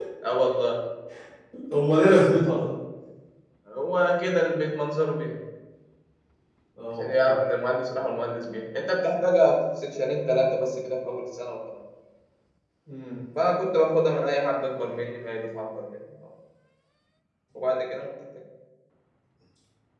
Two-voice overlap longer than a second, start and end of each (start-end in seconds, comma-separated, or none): none